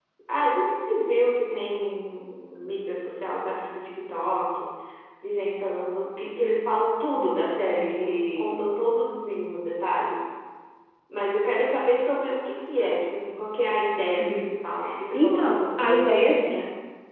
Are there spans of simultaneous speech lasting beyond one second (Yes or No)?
Yes